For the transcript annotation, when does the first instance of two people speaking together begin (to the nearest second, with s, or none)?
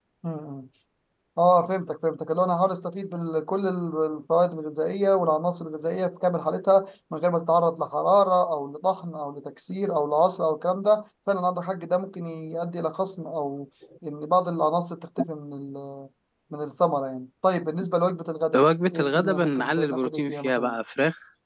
19 s